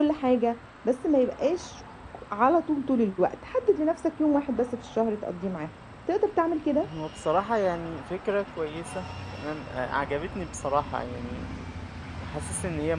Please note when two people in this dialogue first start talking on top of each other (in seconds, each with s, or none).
none